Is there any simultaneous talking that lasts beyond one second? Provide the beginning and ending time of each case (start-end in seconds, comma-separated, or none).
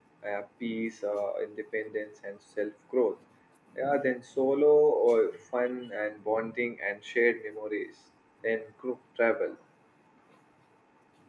none